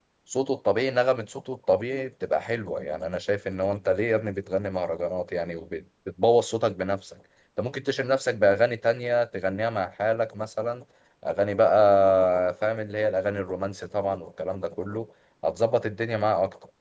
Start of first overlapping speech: none

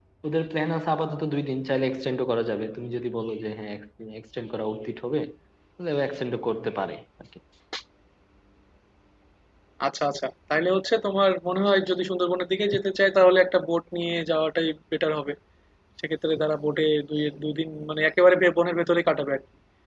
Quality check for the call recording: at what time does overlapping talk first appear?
none

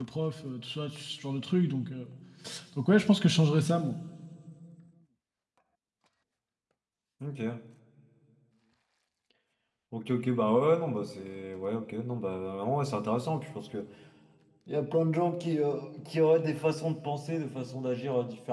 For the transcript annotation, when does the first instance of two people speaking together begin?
none

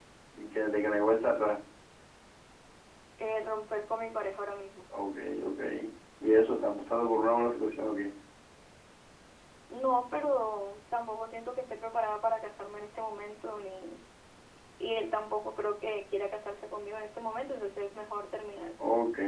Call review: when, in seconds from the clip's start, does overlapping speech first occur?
none

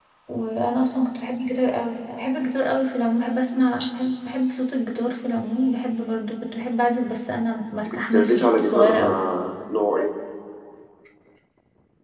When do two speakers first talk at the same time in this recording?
7.9 s

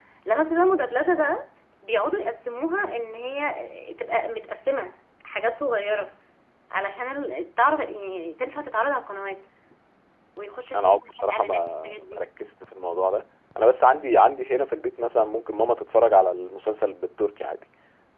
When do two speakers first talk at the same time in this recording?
10.8 s

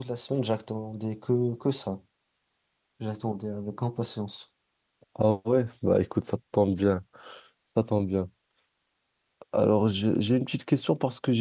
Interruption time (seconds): none

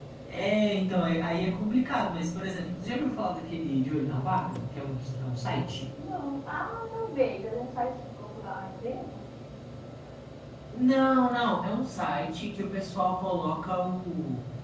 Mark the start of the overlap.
none

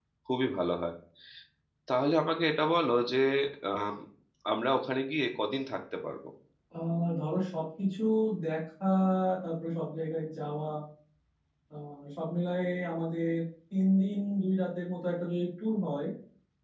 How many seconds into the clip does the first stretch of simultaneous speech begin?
none

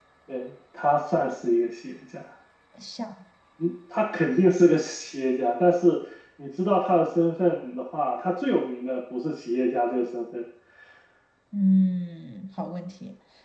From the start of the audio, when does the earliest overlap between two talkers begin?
none

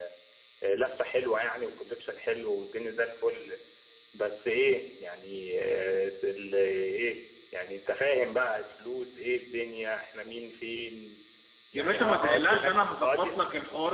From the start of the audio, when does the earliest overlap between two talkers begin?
11.7 s

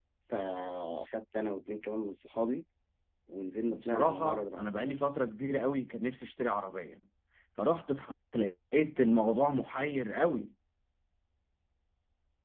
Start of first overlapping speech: 3.7 s

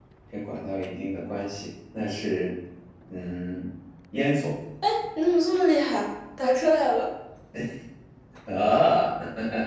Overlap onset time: none

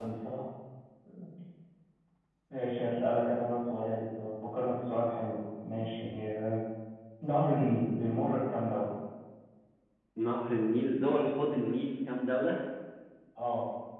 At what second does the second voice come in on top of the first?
none

